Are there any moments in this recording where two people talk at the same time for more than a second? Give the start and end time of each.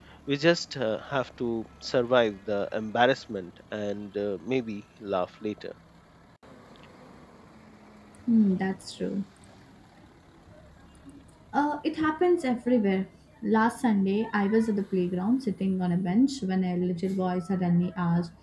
none

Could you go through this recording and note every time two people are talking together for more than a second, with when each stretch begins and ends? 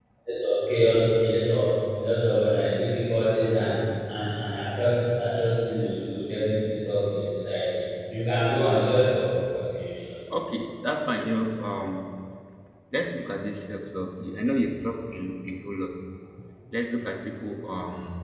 none

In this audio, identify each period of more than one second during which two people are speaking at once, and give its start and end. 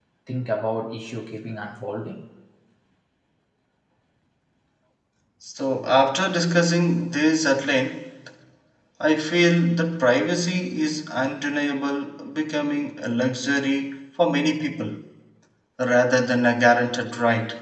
none

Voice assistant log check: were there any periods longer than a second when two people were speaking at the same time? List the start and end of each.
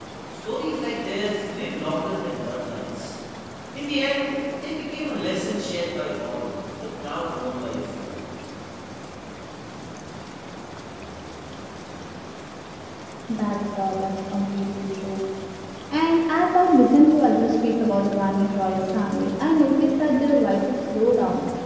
none

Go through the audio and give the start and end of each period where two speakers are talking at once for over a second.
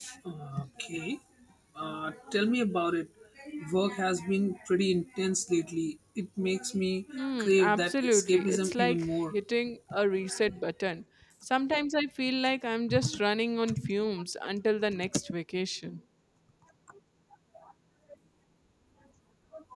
7.1-9.3

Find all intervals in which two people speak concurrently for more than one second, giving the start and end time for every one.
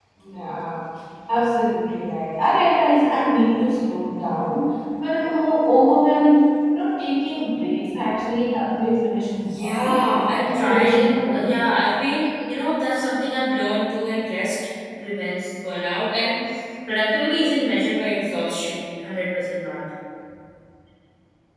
9.5-11.5

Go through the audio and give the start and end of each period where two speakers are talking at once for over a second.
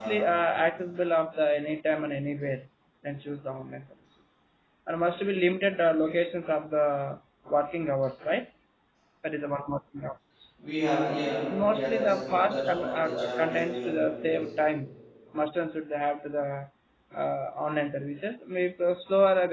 11.7-14.4

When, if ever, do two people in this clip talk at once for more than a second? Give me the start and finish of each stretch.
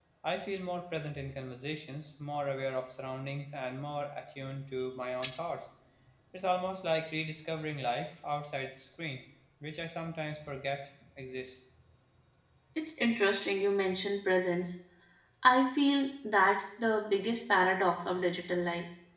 none

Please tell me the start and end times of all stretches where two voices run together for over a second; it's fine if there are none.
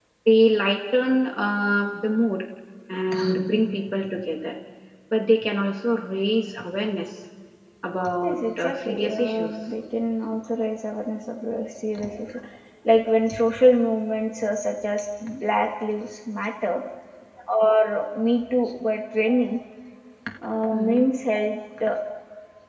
8.2-9.5

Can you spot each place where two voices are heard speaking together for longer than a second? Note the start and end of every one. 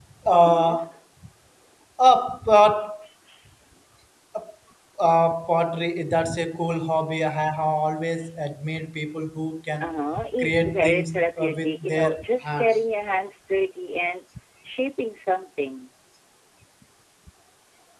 10.4-12.8

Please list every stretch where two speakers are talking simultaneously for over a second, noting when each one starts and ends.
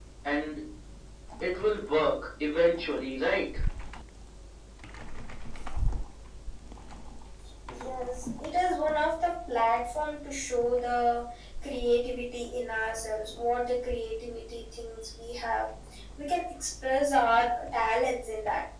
none

